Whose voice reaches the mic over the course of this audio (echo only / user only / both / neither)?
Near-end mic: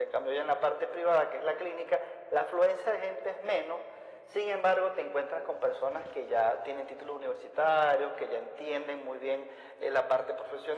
echo only